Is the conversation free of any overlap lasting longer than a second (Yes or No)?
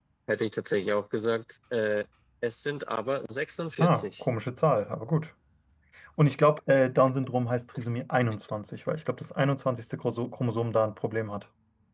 Yes